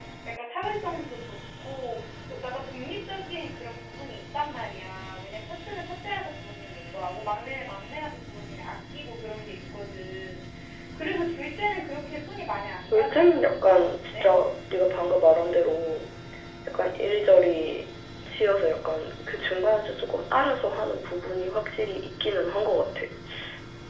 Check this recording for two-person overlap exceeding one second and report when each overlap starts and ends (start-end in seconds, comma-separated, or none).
12.9-14.3